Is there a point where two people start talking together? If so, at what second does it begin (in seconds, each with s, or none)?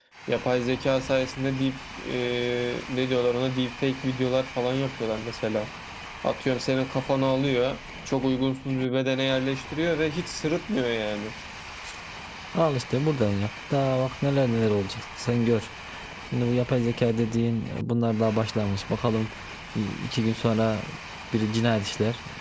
none